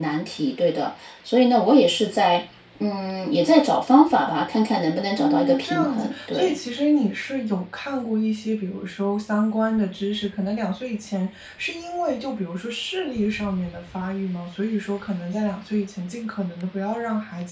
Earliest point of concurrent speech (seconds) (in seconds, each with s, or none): 5.2 s